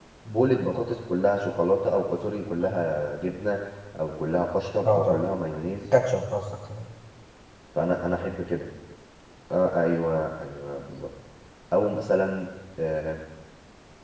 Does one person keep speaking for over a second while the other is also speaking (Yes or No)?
No